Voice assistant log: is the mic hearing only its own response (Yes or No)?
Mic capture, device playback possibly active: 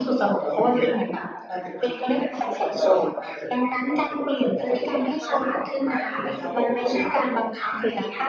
Yes